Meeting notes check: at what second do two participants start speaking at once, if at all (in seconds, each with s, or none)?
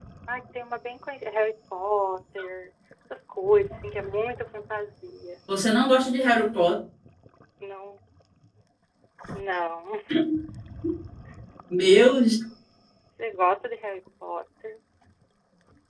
none